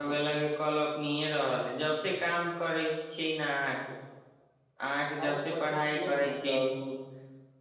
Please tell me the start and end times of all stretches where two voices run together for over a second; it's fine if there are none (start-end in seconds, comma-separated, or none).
5.2-6.6